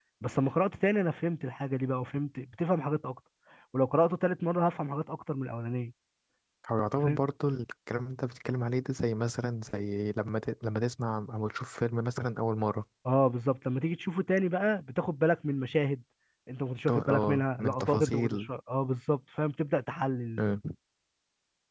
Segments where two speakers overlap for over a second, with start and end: 16.9-18.5

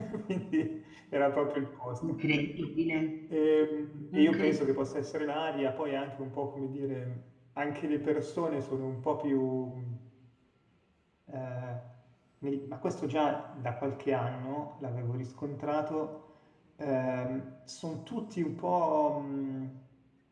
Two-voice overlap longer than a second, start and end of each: none

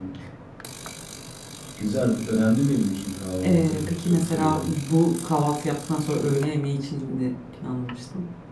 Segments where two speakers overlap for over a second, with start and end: 3.4-4.7

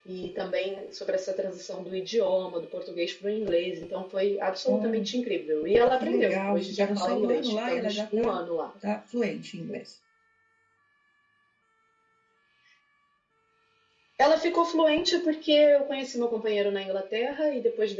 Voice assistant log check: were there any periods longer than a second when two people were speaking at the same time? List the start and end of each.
5.9-8.4

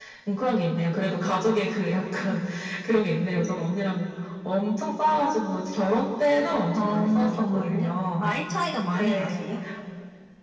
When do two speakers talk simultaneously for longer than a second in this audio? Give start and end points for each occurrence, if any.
6.7-8.6

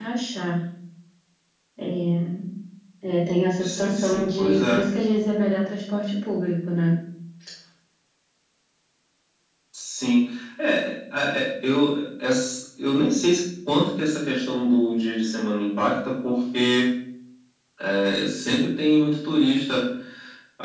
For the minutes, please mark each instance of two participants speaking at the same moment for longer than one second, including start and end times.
3.6-4.8

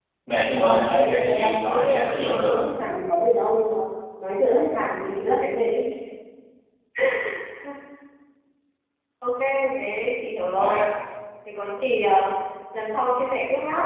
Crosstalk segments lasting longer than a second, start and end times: 0.5-2.6

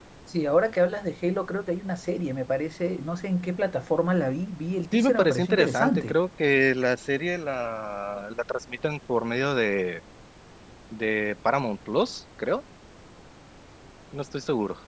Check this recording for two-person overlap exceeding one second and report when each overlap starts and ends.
4.9-6.2

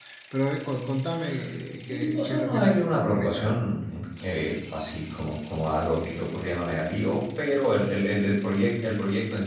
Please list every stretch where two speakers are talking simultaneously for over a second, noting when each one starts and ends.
2.1-3.5

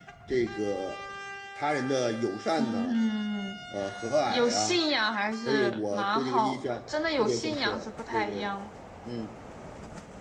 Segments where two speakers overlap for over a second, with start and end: 5.5-6.8, 7.2-8.5

